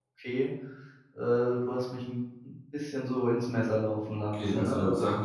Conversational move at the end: taking over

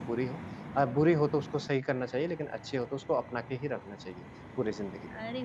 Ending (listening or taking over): taking over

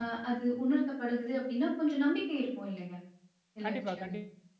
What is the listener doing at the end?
taking over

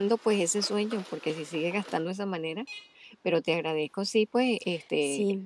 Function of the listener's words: taking over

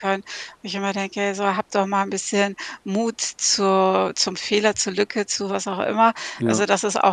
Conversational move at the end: listening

